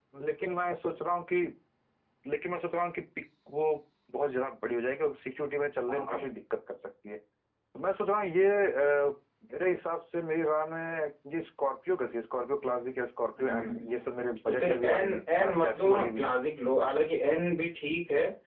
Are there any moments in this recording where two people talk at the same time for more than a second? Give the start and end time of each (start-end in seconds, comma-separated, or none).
13.4-16.3